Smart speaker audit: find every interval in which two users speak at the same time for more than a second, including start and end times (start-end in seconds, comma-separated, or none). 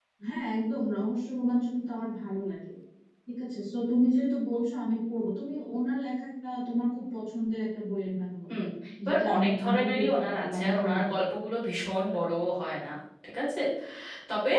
9.1-11.1